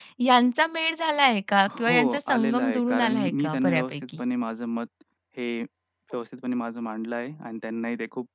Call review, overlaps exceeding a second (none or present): present